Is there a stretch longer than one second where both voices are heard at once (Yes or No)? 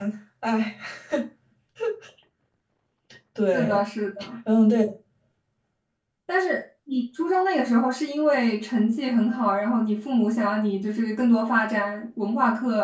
No